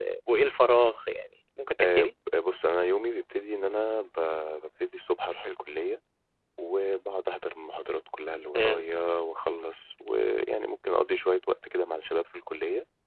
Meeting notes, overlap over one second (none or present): none